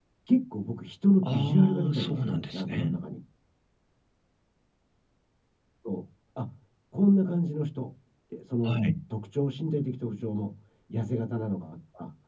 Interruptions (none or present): present